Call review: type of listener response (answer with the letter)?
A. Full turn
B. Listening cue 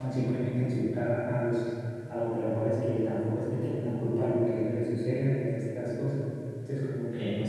A